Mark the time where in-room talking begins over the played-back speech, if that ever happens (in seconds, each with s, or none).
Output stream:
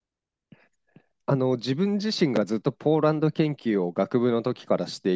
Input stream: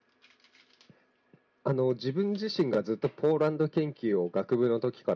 none